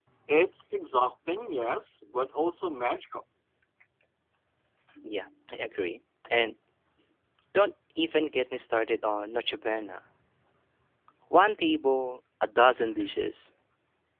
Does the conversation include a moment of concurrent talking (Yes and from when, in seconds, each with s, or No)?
No